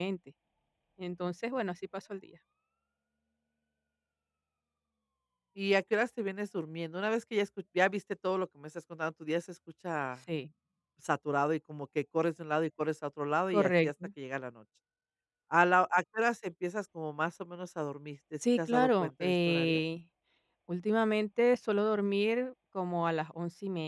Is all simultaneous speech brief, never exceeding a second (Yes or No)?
No